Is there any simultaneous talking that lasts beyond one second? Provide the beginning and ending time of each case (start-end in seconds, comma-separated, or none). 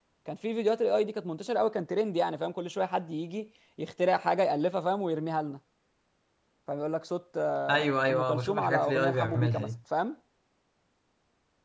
7.7-9.7